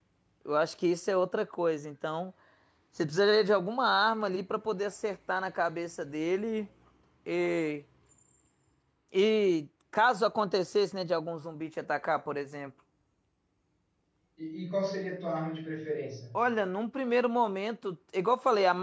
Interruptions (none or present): none